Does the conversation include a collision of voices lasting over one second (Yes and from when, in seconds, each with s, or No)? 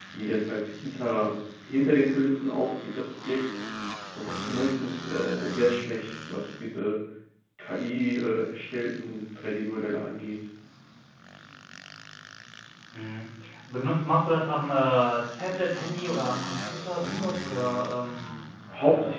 No